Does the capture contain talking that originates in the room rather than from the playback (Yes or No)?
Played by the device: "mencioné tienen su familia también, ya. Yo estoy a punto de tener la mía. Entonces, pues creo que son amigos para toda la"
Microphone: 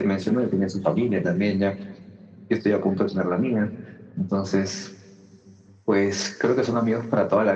No